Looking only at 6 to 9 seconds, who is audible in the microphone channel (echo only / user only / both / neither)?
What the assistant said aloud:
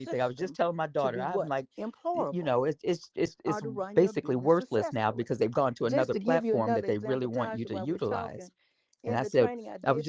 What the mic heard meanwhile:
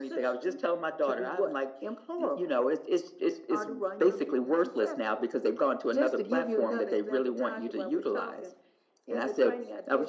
echo only